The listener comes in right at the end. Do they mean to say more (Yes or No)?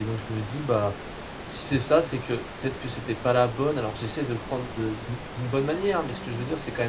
No